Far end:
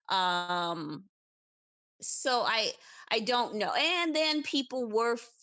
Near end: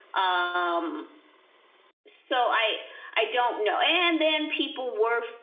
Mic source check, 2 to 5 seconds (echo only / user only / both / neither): echo only